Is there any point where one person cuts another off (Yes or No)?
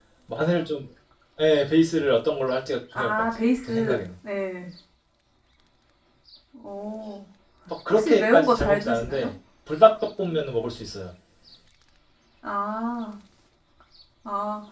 Yes